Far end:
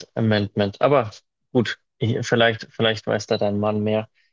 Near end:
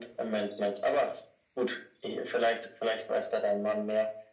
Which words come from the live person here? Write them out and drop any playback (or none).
none